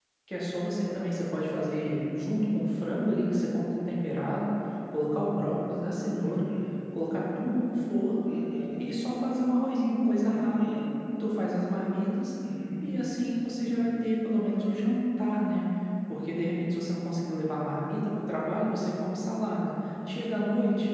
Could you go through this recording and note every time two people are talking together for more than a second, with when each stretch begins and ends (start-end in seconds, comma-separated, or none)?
none